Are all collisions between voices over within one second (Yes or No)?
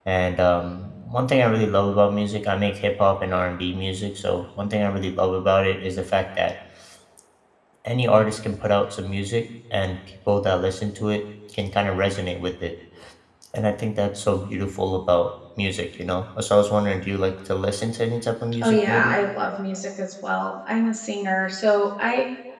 Yes